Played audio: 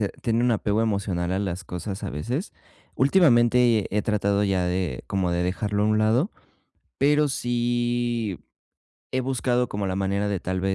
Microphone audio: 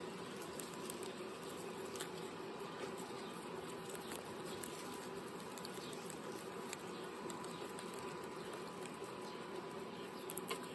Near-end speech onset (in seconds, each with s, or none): none